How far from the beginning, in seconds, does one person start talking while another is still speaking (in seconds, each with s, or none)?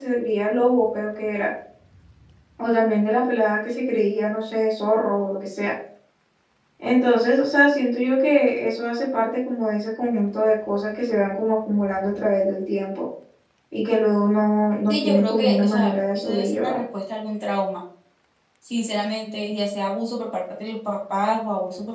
14.9 s